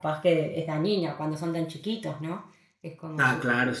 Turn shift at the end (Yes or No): Yes